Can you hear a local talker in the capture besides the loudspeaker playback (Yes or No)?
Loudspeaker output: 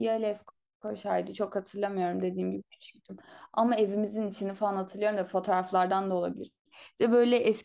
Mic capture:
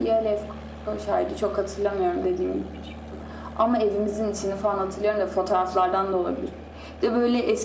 No